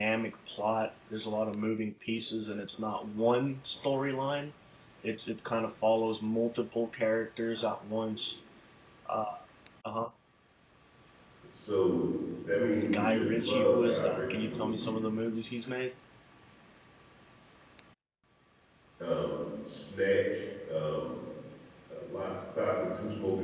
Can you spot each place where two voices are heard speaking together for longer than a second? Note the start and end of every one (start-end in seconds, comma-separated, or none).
12.9-15.0